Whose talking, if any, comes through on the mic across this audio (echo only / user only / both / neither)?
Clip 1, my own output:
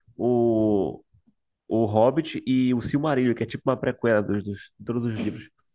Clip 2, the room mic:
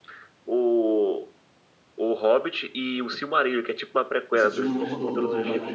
both